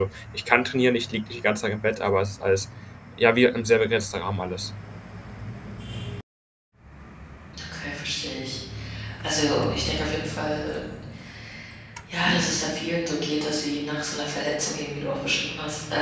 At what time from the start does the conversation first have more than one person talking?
none

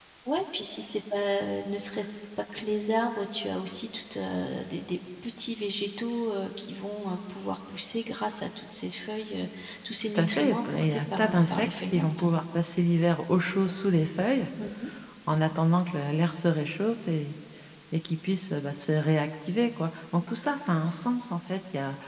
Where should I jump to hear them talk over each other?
10 s

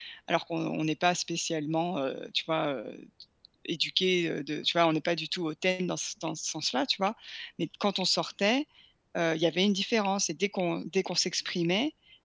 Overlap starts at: none

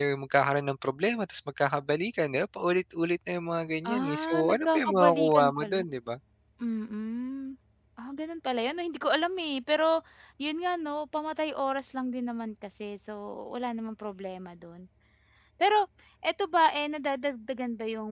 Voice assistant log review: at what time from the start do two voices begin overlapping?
4 s

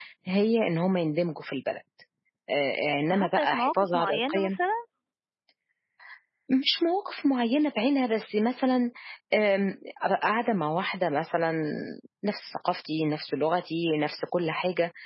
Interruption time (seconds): 3 s

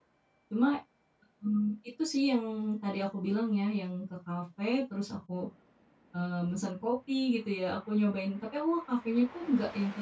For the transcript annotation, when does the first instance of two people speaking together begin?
none

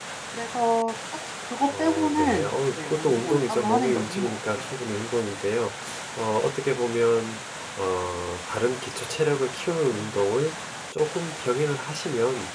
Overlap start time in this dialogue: 2 s

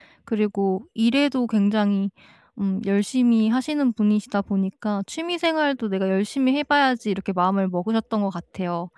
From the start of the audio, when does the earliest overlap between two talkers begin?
none

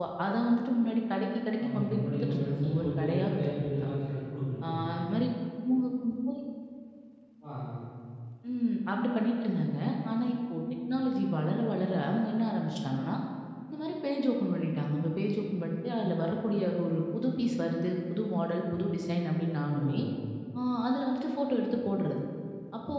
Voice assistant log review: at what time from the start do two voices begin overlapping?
2 s

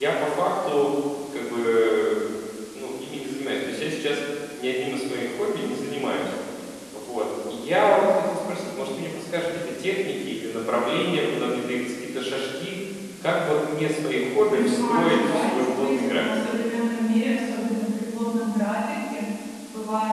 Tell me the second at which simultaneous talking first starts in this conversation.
14 s

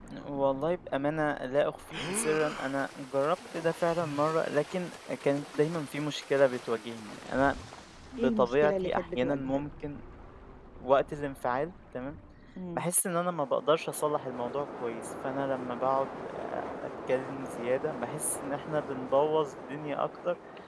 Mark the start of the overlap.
8 s

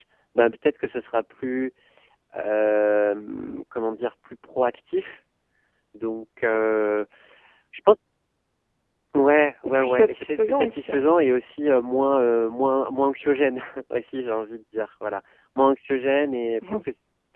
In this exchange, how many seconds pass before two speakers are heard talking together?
10 s

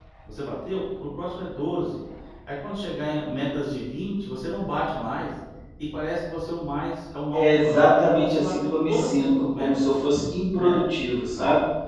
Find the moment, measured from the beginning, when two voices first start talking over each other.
7 s

